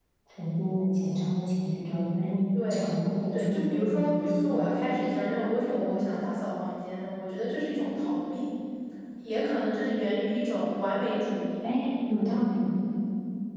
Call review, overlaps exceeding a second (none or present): present